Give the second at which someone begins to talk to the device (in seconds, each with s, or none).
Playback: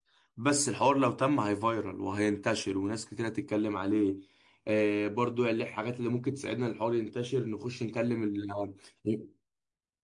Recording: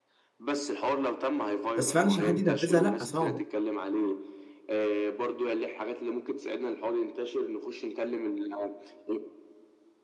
1.8 s